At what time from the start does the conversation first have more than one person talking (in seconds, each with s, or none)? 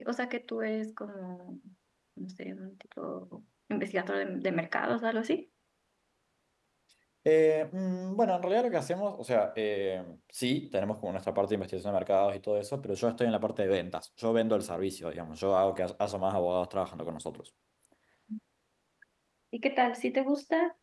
none